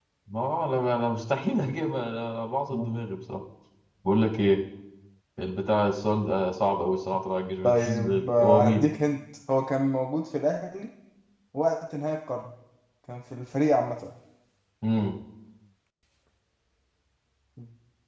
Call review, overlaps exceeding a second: present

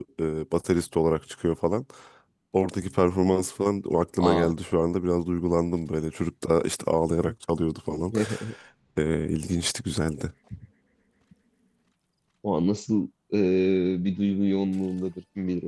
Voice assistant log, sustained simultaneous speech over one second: none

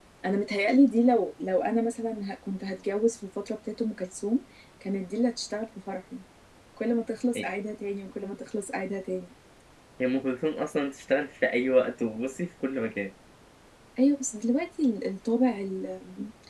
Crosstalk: none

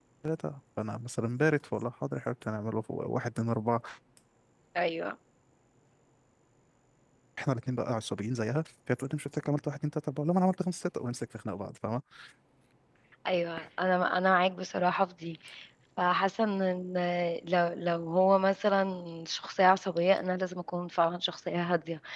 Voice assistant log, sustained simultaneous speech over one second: none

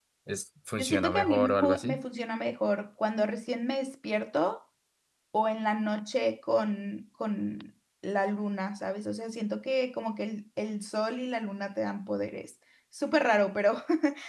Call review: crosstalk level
present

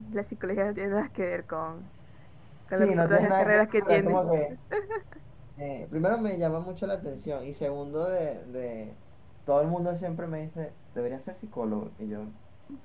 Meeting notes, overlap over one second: present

